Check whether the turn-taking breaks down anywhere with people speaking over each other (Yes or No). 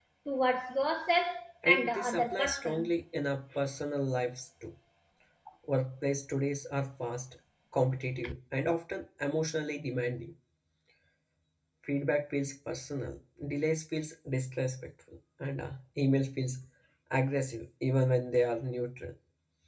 Yes